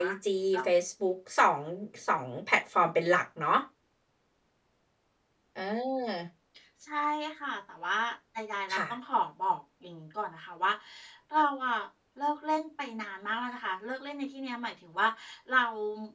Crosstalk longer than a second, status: none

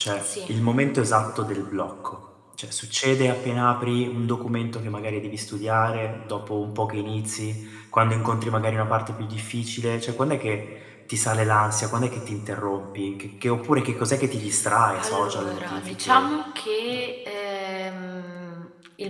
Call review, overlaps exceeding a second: present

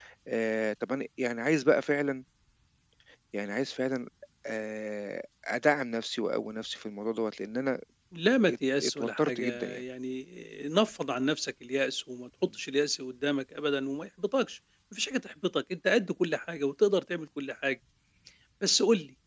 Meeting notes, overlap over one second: present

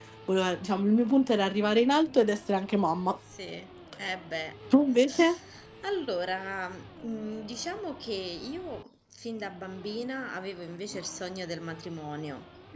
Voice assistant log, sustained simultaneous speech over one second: none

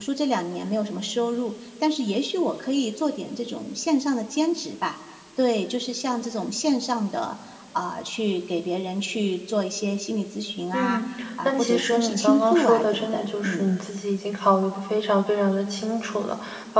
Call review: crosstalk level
present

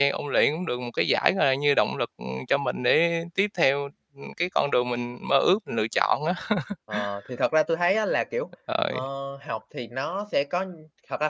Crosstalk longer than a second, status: none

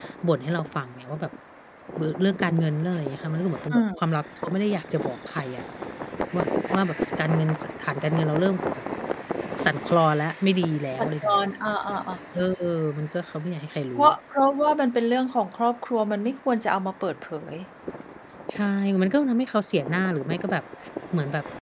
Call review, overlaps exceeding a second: none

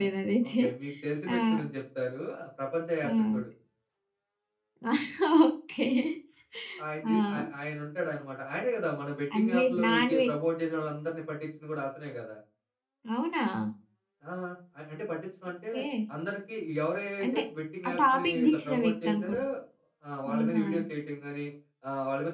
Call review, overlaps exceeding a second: present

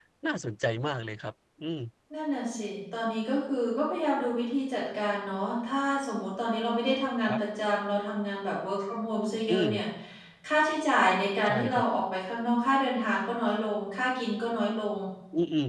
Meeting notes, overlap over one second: none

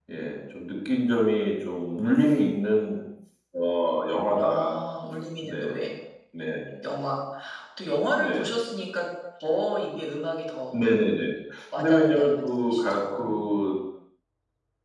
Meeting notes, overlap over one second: present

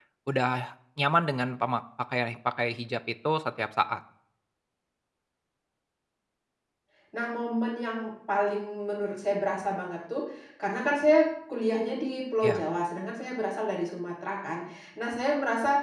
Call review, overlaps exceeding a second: none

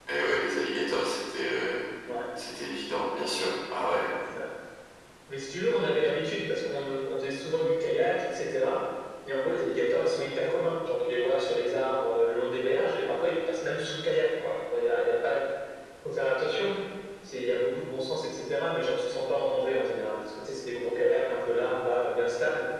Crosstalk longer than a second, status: none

